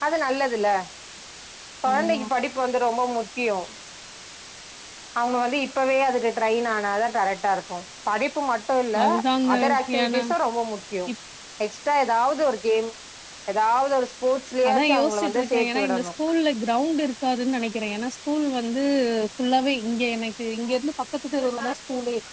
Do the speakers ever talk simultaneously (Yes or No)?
Yes